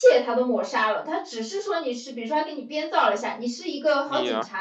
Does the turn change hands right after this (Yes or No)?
No